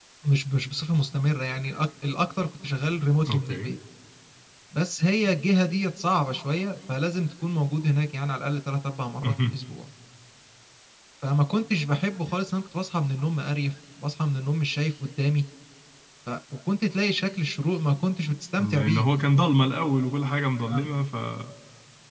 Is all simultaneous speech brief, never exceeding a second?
Yes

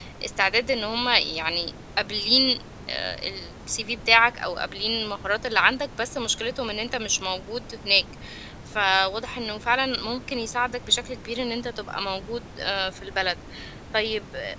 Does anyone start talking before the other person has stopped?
No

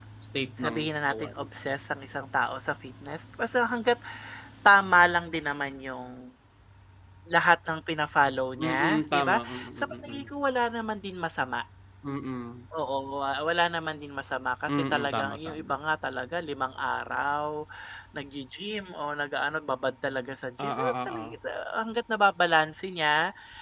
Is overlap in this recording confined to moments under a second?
No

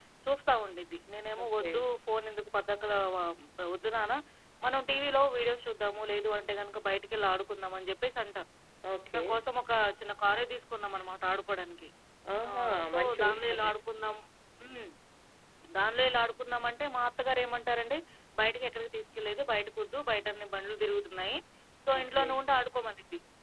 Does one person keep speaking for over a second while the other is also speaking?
Yes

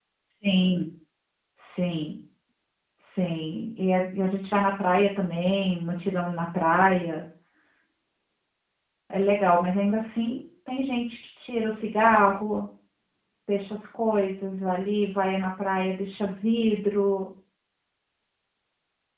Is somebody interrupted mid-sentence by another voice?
No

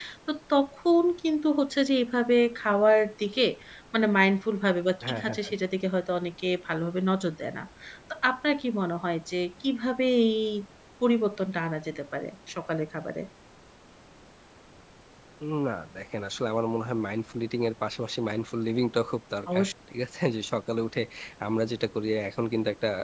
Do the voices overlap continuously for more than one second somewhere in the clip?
No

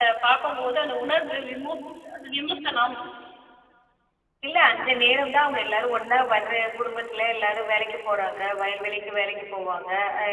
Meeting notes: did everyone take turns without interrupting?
Yes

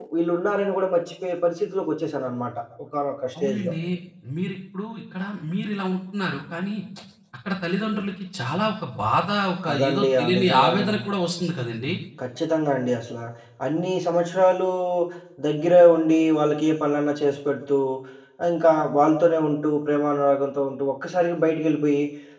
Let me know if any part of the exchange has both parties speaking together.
Yes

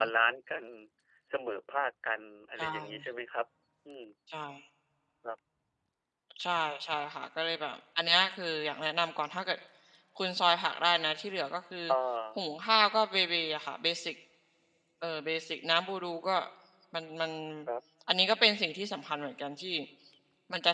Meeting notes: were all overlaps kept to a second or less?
Yes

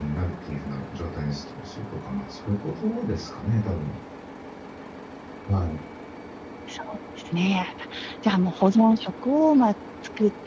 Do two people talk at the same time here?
No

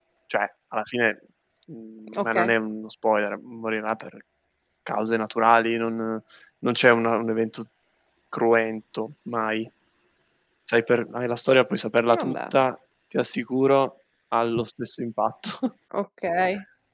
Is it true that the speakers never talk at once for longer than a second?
Yes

